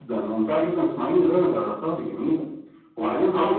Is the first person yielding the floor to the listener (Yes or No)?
No